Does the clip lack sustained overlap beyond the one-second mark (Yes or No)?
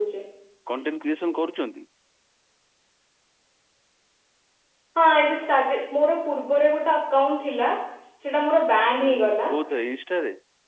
Yes